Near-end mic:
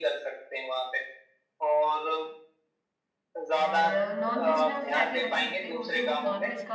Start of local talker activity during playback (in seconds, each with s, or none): 3.6 s